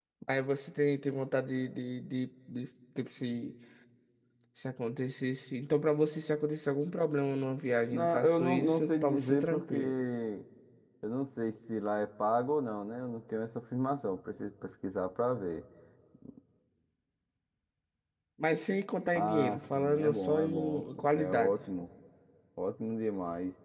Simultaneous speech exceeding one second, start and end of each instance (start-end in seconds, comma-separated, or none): 7.9-9.9, 19.1-21.6